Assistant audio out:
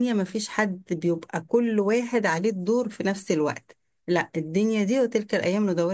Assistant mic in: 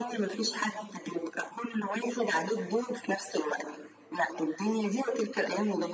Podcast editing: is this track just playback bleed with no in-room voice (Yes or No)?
Yes